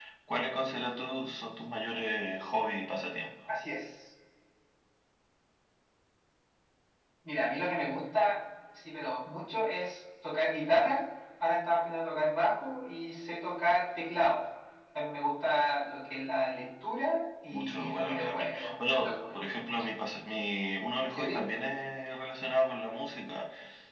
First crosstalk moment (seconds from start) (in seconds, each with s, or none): 17.5 s